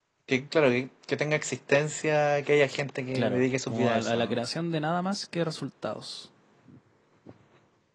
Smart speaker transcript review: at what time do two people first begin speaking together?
3.1 s

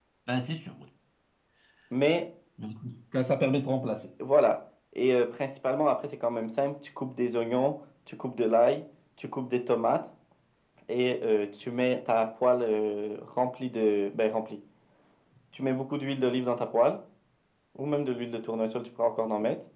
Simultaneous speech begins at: none

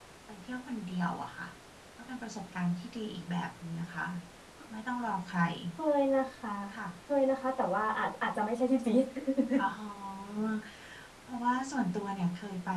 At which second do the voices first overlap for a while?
none

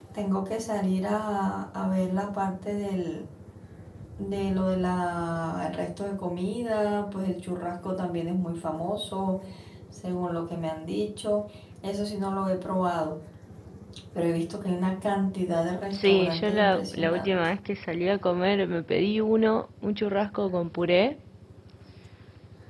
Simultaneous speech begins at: 15.9 s

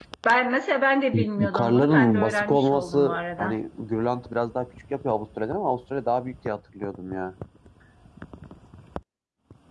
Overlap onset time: 1.1 s

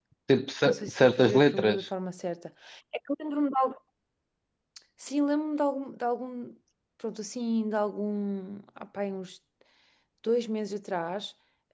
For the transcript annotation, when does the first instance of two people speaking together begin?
0.7 s

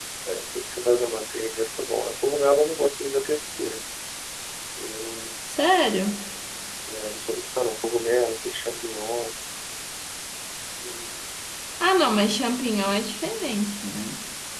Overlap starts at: none

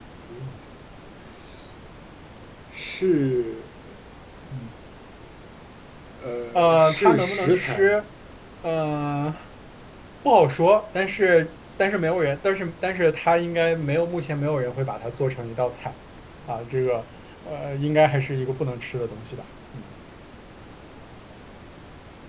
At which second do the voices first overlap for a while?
6.6 s

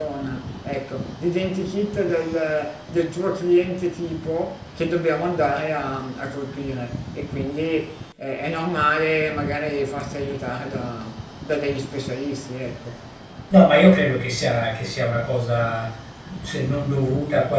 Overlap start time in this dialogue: none

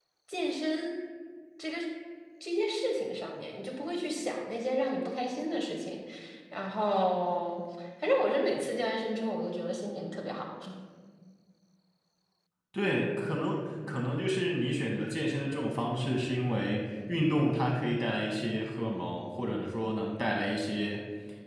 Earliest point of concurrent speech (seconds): none

